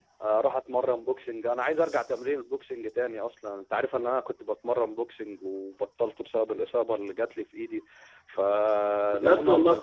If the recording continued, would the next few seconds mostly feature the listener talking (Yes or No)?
Yes